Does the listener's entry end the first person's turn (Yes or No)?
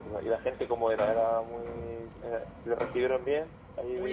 Yes